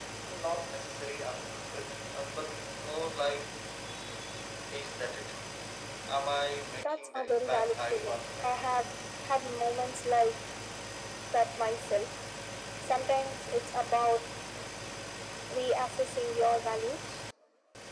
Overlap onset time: 7 s

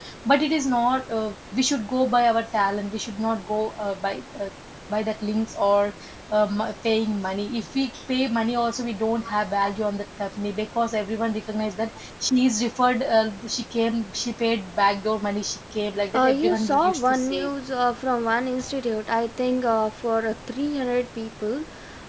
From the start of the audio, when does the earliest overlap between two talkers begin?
16 s

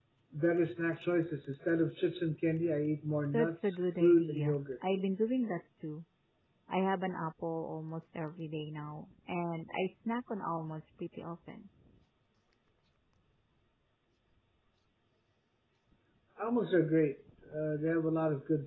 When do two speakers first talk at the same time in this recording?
3 s

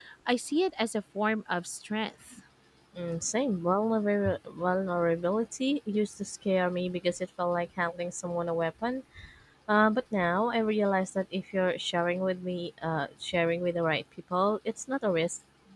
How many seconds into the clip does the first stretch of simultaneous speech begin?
none

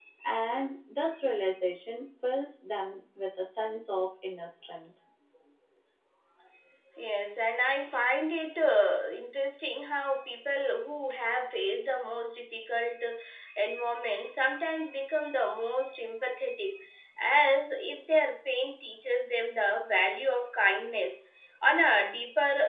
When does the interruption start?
none

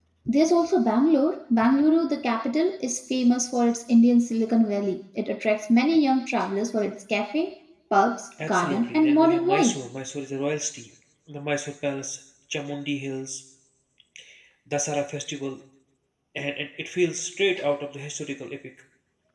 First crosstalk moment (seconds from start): 8 s

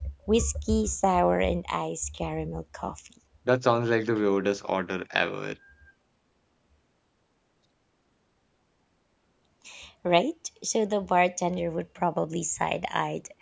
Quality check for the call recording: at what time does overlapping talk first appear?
none

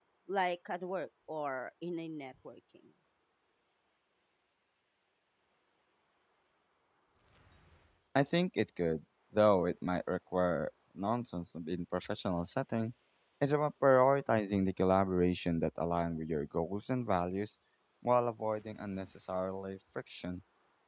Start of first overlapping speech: none

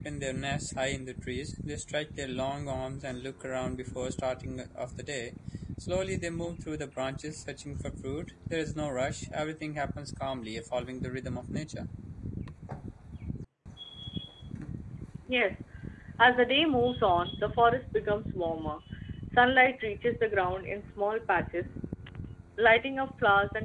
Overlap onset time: none

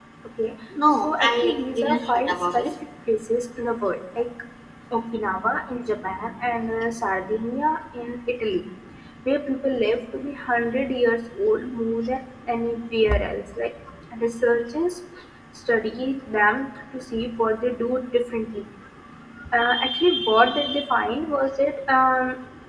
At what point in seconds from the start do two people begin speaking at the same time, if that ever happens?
1 s

